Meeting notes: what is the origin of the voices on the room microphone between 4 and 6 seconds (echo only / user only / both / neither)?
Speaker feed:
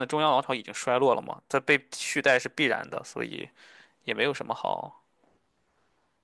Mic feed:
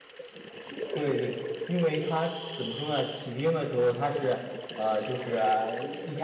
user only